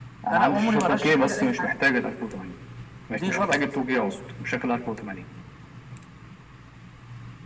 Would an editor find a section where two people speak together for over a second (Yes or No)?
Yes